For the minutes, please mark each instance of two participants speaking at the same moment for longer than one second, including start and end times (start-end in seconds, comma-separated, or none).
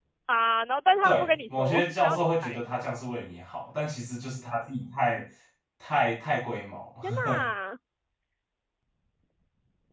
1.0-2.6